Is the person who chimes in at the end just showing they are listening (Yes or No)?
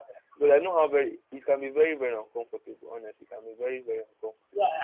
No